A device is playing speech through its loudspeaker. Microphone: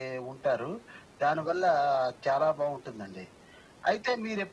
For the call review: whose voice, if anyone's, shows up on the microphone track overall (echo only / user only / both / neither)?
echo only